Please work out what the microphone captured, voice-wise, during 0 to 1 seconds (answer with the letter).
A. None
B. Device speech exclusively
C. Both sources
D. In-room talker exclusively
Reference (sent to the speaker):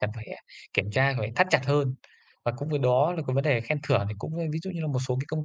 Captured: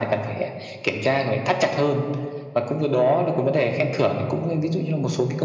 B